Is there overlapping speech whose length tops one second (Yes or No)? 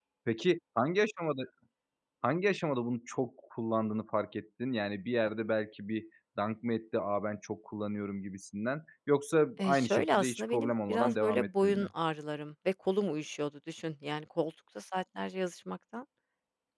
Yes